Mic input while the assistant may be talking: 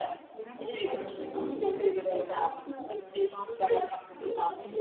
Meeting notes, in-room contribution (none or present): present